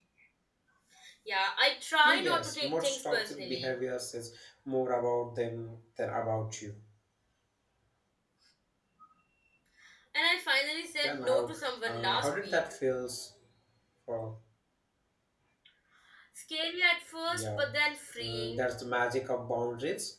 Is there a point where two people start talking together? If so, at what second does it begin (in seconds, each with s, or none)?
2.0 s